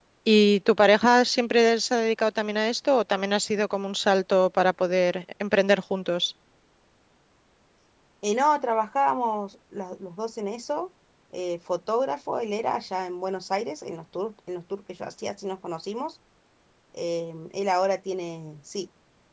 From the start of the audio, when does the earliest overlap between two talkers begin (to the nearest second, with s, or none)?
none